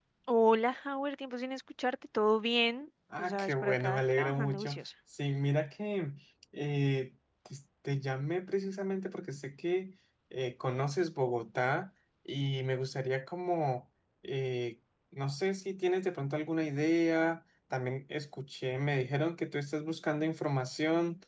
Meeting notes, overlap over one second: present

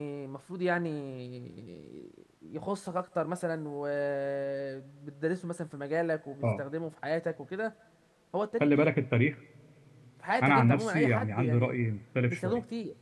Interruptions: present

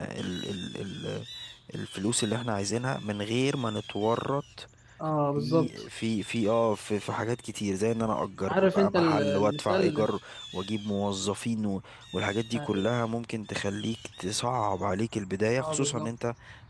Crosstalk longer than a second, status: present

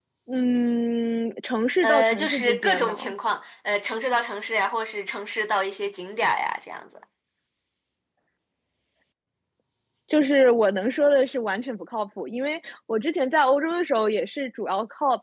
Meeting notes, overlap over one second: present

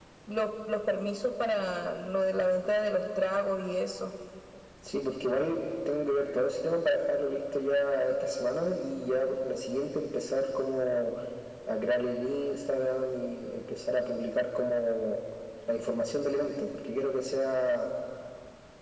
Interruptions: none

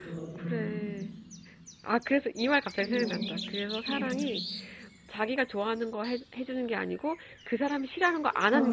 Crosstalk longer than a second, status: none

